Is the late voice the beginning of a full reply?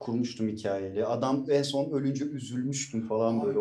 Yes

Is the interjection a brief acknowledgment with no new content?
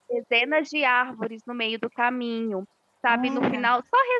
Yes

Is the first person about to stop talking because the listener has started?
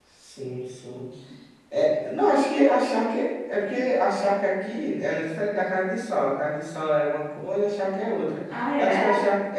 No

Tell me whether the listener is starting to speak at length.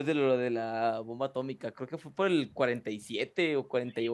Yes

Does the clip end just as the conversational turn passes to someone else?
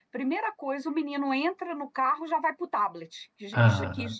No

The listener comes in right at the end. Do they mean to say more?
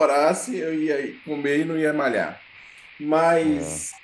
No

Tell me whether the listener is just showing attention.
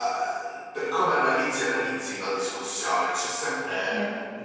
Yes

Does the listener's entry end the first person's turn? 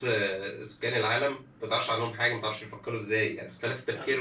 No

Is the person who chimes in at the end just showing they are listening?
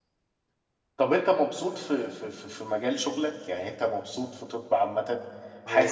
Yes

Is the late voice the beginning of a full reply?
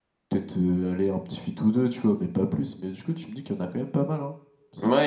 Yes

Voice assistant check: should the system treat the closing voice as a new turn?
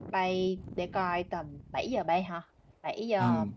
Yes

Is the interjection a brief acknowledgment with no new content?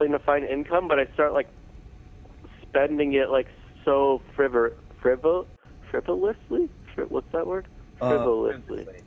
No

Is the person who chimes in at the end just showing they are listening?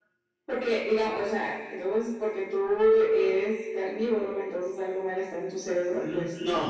No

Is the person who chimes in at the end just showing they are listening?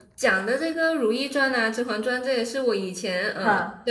Yes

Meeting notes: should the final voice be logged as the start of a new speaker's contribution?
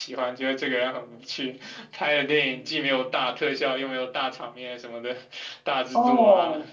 Yes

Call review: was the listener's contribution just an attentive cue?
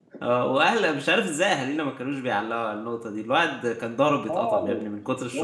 No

